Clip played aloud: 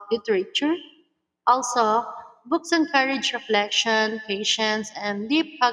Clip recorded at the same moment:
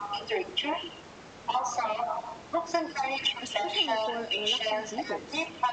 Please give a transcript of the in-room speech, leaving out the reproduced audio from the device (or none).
especially for reluctant readers.